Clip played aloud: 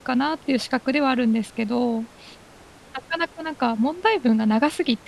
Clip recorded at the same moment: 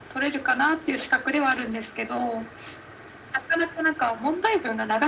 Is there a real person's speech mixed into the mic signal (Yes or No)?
No